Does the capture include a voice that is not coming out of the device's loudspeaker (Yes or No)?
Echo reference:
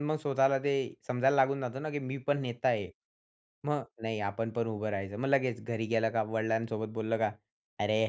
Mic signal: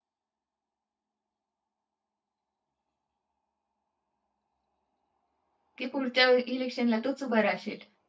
Yes